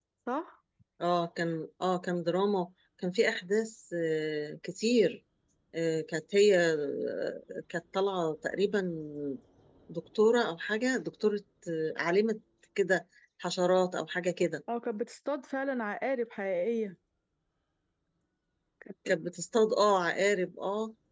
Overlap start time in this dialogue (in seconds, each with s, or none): none